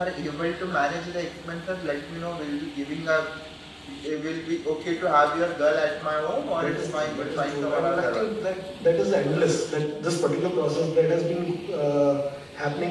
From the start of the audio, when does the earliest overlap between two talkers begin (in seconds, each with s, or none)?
6.5 s